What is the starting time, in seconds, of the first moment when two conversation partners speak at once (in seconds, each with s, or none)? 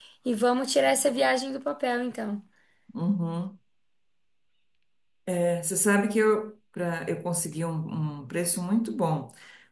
none